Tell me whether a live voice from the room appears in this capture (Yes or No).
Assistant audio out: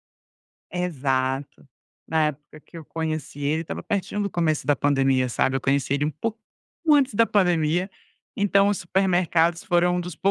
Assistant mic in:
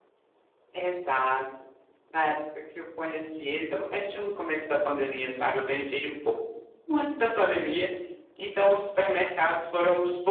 No